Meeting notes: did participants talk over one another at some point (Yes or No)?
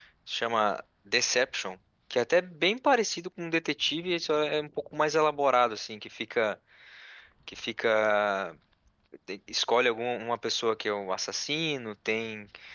No